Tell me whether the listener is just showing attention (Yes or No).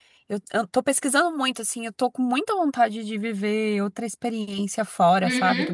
Yes